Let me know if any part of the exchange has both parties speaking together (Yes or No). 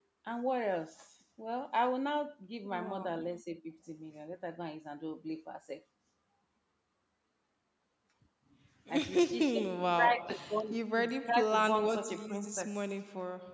Yes